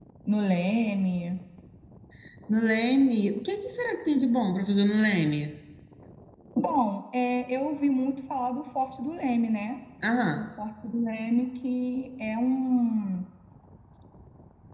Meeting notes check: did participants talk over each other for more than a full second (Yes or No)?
No